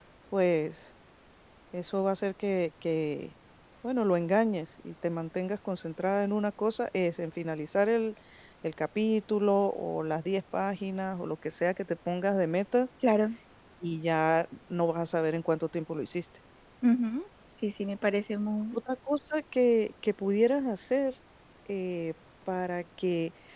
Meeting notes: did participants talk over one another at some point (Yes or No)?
No